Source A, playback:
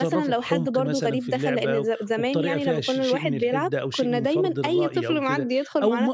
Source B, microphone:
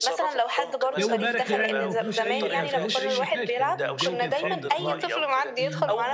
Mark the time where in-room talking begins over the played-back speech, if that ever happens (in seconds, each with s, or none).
1.0 s